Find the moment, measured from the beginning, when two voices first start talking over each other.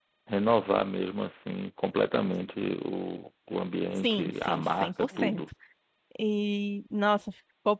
4.0 s

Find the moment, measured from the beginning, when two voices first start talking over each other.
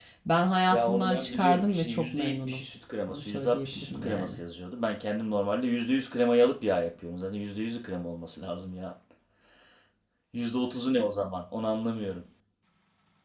0.7 s

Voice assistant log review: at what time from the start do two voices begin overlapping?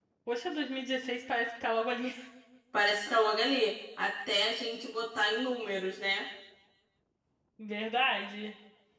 none

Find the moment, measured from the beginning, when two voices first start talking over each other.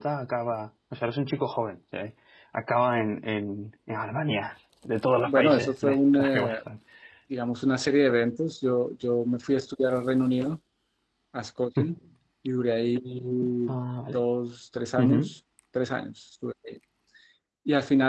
5.2 s

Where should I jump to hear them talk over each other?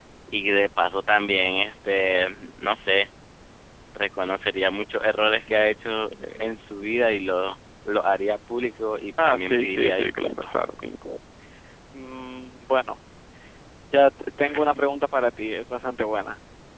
9.2 s

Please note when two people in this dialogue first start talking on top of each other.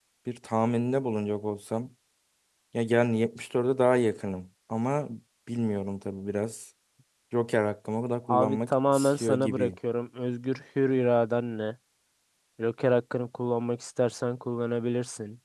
8.3 s

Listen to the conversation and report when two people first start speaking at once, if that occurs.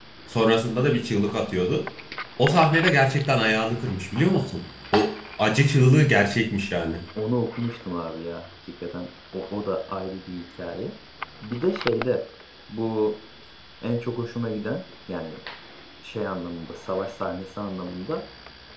none

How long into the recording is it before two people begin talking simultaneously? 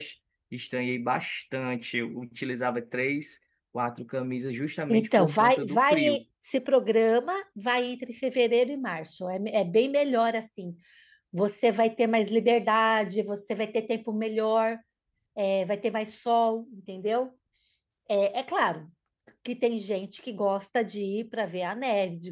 4.9 s

